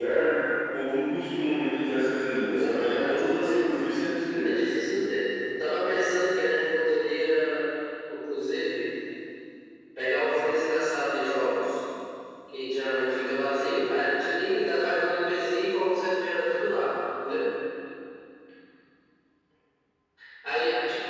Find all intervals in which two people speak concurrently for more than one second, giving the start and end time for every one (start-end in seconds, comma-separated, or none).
2.5-3.8